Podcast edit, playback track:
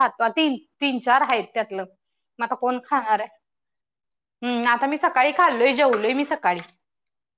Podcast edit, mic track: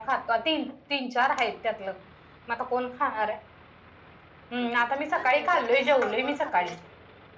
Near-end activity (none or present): present